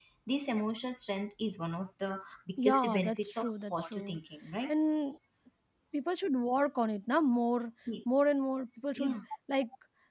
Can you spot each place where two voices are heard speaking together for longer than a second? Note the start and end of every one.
2.6-4.2

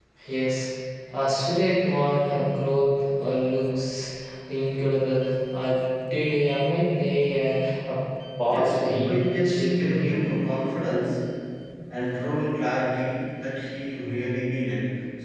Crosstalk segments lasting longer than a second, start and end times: 8.5-10.2

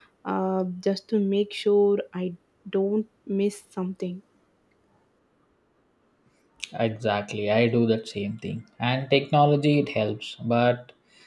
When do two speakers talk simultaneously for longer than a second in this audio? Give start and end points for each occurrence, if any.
none

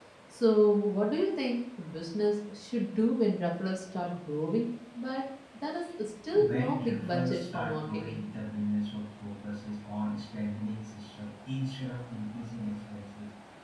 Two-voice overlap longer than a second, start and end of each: 6.3-8.2

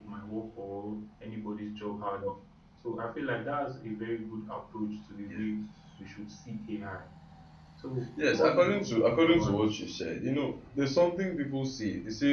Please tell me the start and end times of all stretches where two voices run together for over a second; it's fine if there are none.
8.3-9.6

